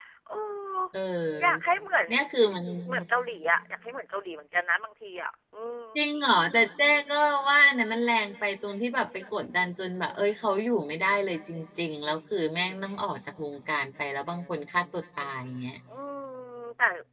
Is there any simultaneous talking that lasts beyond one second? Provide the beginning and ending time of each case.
none

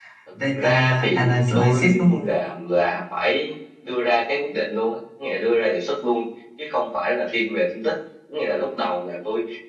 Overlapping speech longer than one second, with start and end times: 0.5-2.2

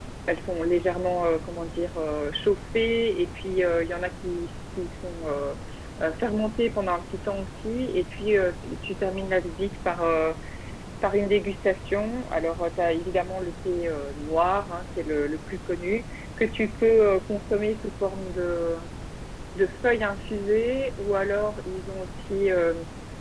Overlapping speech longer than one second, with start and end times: none

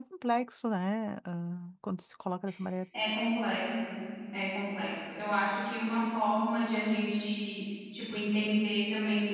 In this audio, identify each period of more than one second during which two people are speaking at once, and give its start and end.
none

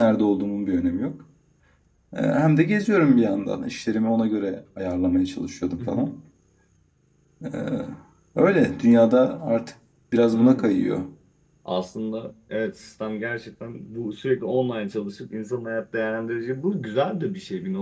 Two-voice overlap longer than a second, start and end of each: none

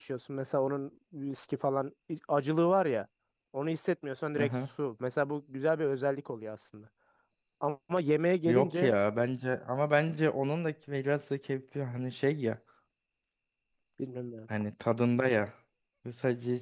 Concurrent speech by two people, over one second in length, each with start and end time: none

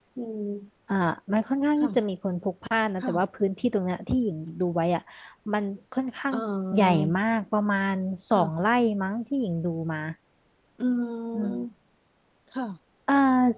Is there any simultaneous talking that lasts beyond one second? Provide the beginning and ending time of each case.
none

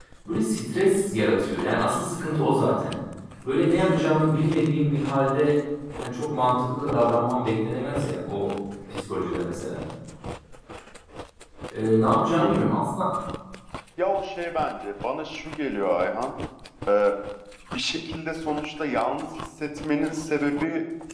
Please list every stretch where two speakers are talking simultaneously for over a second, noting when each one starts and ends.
none

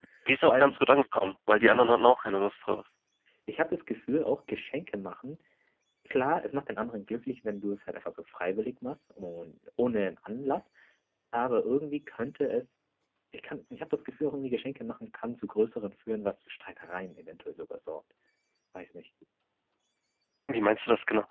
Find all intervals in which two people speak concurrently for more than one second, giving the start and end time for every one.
none

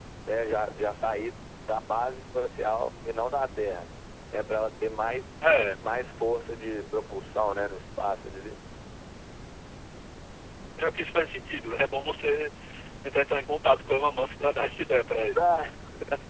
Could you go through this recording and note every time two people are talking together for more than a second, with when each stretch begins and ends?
none

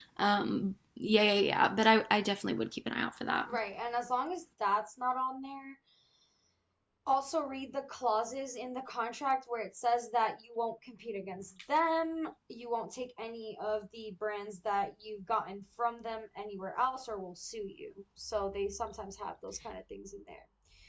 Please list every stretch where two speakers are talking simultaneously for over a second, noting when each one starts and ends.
none

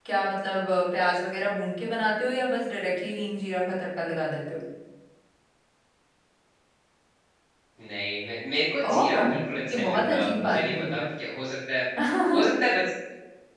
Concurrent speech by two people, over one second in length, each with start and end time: 9.7-11.0

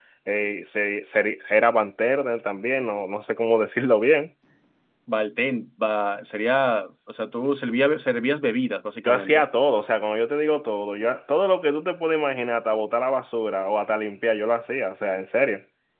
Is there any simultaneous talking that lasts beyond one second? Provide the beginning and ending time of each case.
none

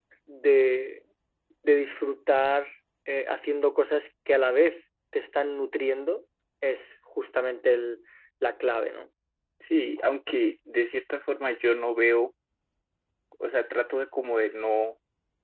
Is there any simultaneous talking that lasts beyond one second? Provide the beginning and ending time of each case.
none

